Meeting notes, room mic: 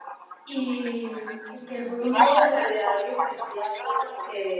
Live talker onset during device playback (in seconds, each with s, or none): 0.4 s